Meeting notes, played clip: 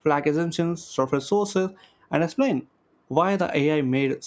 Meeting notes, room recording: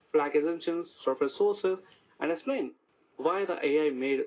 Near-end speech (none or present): none